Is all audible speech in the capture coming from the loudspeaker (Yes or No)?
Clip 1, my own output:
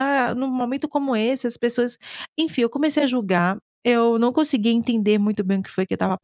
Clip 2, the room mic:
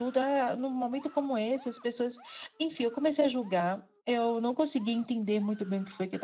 Yes